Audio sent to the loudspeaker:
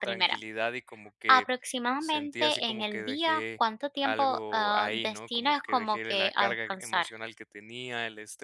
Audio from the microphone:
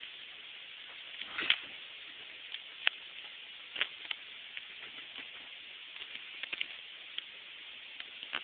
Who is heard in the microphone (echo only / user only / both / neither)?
neither